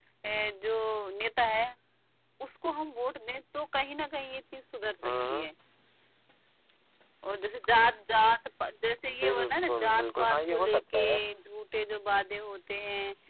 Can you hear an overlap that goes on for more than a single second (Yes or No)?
Yes